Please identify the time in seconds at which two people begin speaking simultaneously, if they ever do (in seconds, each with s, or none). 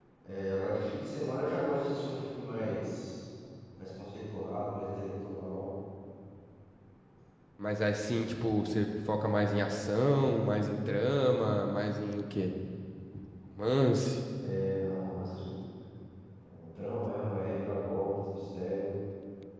none